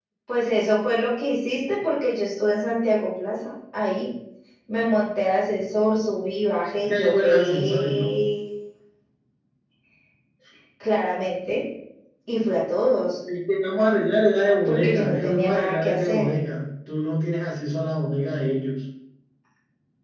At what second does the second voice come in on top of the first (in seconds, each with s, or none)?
6.9 s